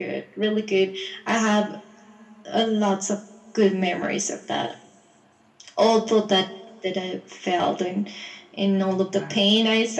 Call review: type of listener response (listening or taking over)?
listening